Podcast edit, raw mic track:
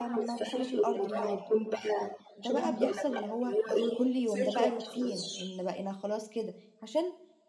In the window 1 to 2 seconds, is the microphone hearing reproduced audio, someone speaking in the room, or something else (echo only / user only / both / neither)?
both